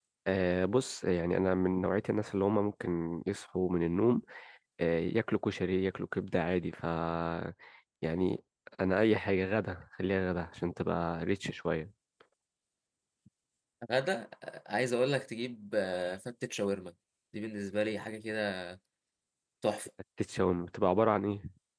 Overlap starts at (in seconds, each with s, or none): none